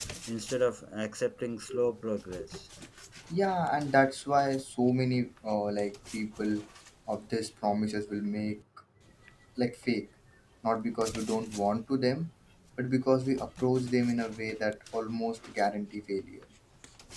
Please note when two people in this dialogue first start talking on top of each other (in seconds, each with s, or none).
none